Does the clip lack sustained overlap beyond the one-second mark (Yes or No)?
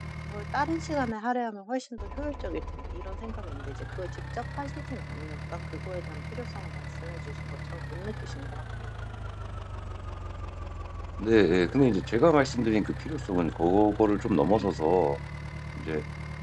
Yes